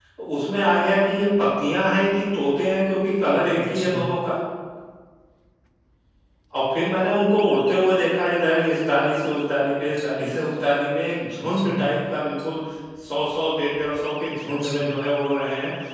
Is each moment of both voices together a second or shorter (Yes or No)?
Yes